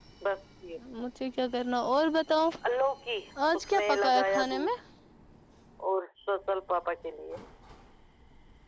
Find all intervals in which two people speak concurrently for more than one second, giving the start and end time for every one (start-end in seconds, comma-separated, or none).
3.5-4.8